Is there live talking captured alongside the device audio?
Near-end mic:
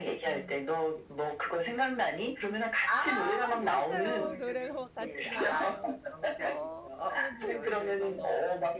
Yes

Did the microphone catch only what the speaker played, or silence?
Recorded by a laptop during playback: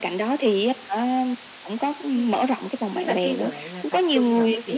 No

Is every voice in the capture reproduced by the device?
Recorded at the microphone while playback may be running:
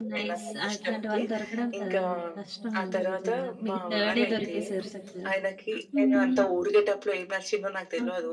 No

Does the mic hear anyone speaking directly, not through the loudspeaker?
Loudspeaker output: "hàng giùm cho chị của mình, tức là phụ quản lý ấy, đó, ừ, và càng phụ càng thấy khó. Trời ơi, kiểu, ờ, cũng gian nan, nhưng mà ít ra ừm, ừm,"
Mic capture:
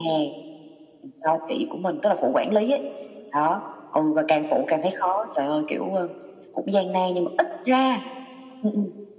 No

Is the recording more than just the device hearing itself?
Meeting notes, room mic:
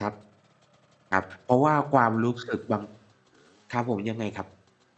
Yes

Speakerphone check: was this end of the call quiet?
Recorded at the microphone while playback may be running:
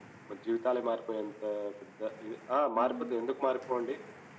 No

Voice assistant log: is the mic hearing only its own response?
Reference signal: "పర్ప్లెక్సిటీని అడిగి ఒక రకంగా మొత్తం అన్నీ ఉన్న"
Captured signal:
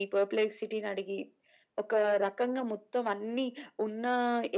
Yes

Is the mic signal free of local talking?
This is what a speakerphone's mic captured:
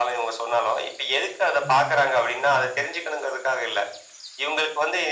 No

